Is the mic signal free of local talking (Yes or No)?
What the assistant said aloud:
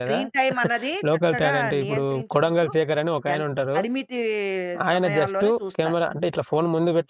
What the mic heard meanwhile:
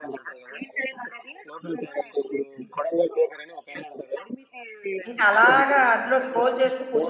No